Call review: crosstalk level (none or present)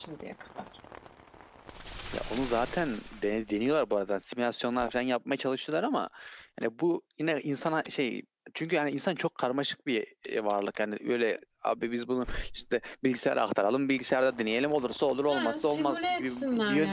present